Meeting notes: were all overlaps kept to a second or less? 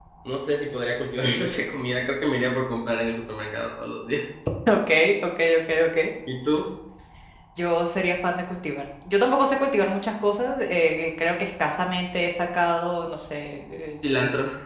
Yes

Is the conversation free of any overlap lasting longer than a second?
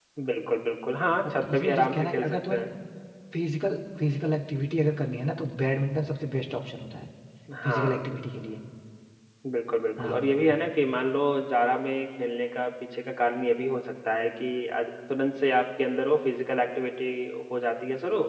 No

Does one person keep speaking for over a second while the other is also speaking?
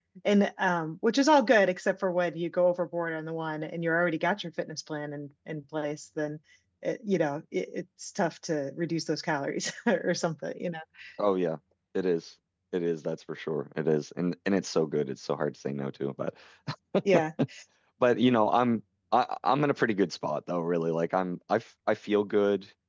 No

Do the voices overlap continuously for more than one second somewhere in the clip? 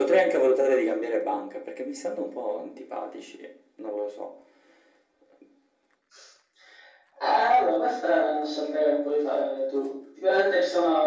No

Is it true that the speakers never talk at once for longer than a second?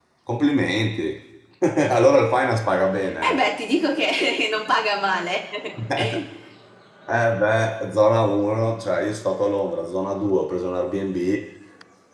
Yes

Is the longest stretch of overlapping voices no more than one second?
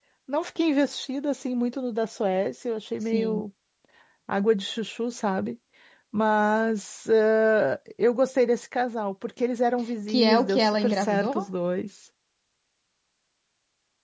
No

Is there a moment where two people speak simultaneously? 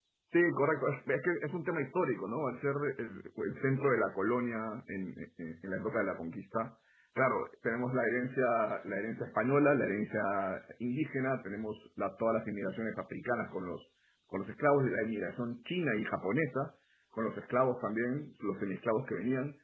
No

